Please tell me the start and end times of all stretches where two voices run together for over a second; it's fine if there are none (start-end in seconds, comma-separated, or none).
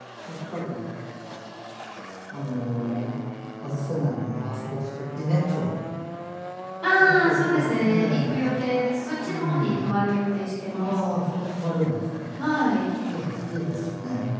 7.0-8.3